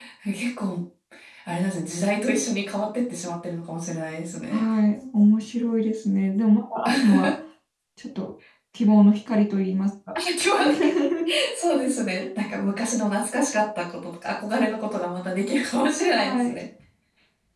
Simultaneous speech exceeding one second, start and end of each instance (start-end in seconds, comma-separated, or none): none